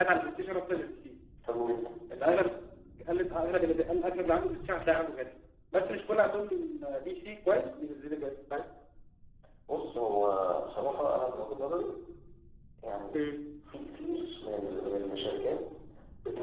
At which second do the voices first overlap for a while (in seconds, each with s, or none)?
none